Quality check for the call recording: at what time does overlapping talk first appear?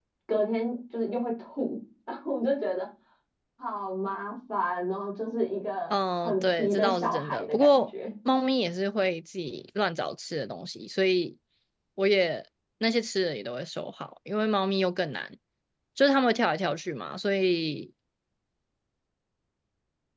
5.9 s

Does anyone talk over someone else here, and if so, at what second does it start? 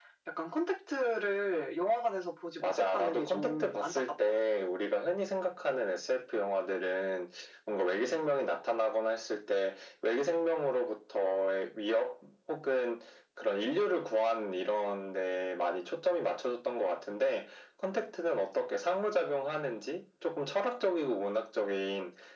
2.6 s

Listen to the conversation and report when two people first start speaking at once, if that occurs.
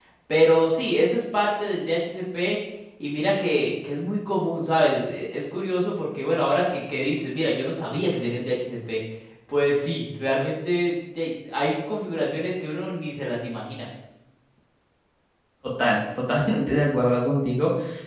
none

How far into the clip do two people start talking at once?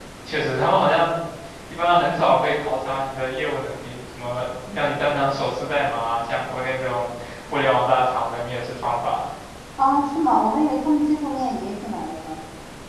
none

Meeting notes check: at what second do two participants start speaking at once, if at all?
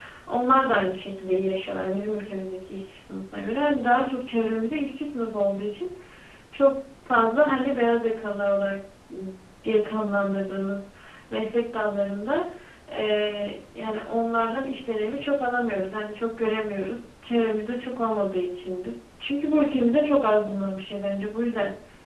none

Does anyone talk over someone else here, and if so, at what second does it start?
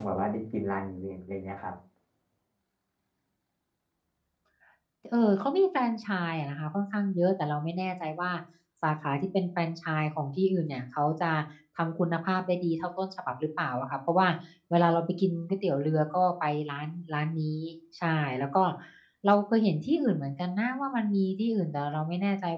none

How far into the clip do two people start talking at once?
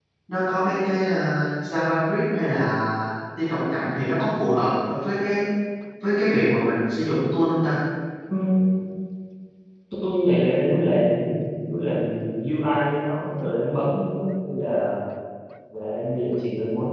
none

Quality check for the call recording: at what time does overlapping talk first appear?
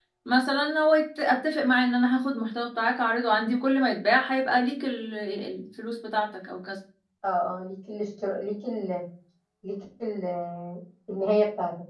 none

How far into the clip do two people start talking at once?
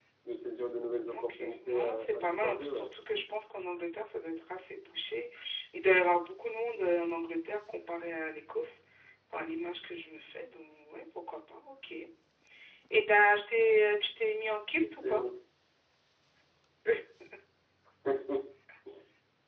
1.1 s

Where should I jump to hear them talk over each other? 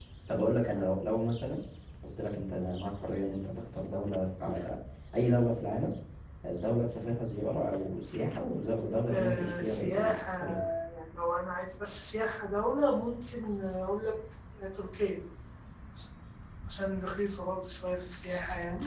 9.1 s

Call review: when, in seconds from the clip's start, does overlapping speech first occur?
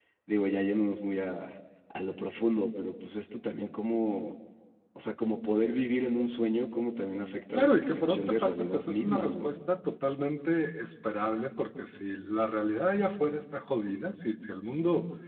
7.5 s

